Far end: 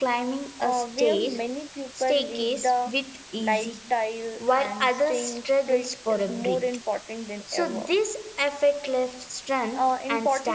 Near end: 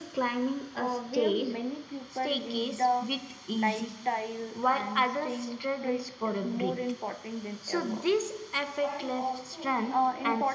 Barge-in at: 9 s

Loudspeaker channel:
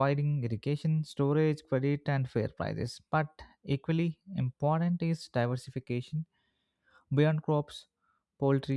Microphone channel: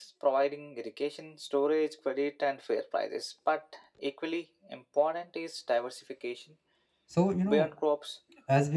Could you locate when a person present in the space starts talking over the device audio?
7 s

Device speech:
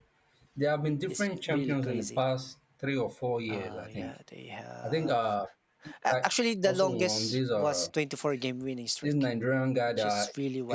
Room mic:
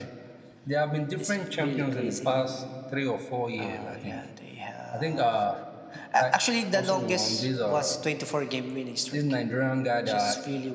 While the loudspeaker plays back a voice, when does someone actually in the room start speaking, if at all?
none

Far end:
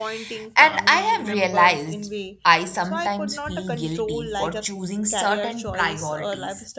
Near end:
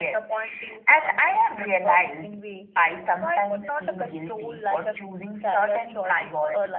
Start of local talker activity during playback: none

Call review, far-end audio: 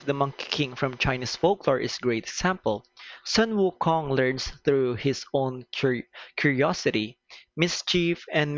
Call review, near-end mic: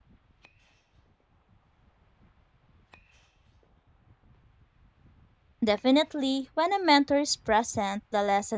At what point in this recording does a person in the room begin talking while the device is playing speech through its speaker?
6 s

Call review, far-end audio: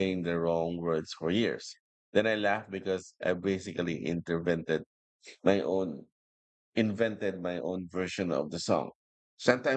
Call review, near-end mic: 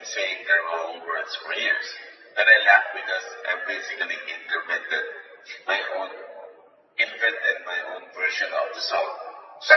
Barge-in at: none

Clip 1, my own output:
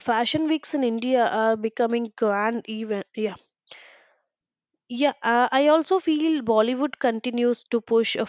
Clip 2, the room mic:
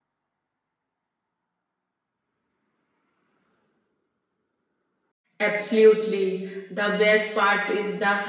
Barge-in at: 5 s

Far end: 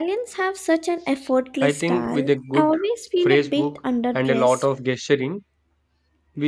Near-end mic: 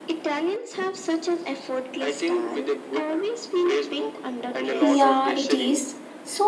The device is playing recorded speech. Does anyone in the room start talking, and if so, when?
5 s

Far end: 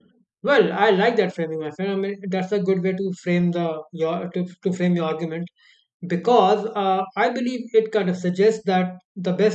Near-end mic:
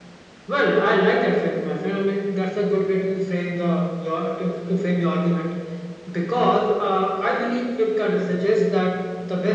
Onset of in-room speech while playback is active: none

